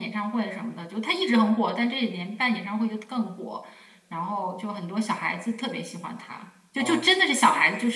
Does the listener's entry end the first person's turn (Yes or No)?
No